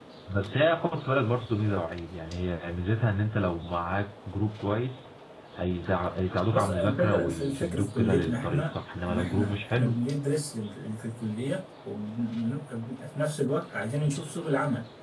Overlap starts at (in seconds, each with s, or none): 6.5 s